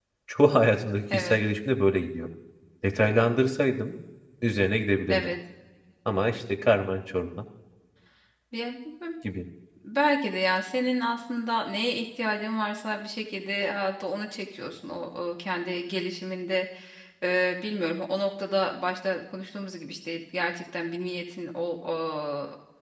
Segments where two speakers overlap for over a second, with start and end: none

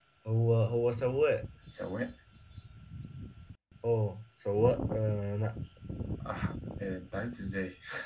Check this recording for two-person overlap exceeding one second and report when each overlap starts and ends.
none

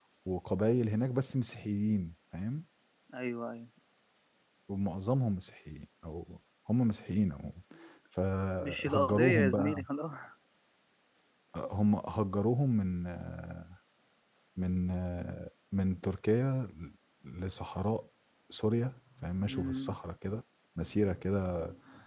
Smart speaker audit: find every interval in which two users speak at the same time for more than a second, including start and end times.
8.6-9.8

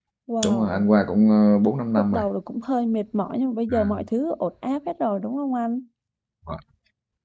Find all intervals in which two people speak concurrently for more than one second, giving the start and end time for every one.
none

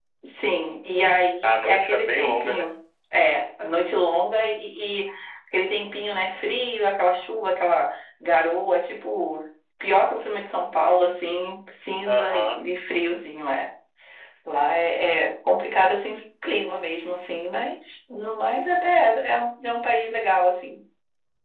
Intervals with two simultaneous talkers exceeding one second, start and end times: 1.4-2.7

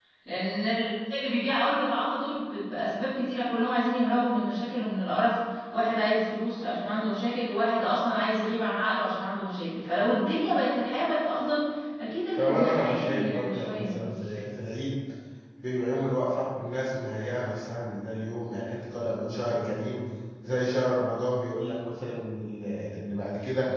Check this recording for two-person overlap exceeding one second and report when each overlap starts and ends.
12.4-13.9

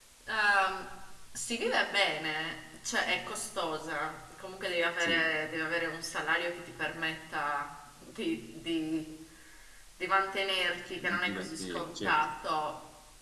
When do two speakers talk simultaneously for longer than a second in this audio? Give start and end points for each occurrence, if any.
11.0-12.3

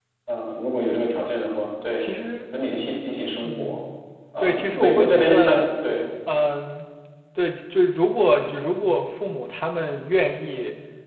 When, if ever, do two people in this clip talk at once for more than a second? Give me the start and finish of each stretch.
4.4-5.6

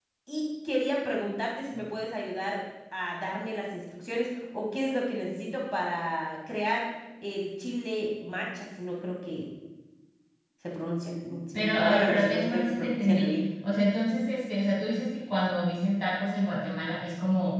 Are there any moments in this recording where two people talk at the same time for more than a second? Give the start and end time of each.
11.5-13.3

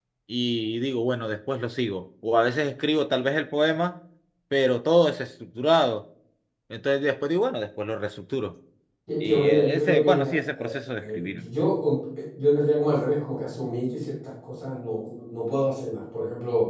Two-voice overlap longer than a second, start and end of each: 9.2-11.5

